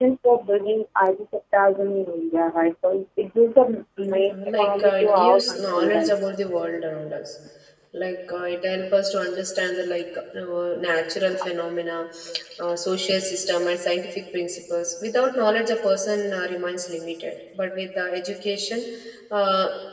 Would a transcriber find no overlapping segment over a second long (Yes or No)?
No